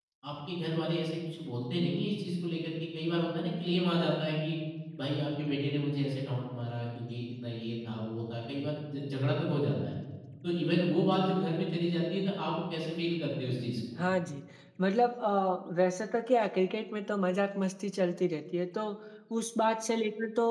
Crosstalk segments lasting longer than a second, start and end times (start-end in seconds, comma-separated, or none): none